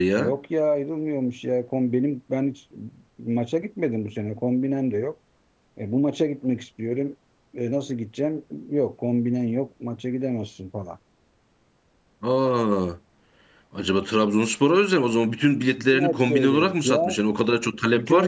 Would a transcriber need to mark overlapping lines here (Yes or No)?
Yes